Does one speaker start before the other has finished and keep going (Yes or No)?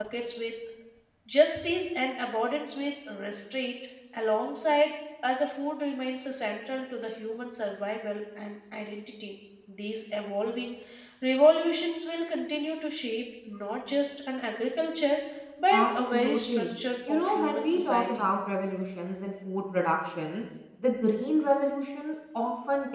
Yes